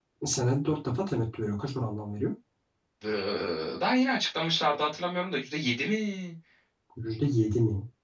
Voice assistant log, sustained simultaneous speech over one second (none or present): none